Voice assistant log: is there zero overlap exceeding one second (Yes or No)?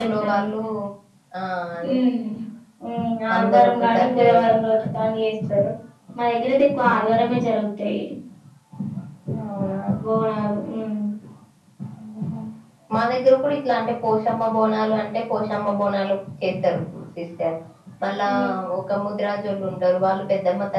No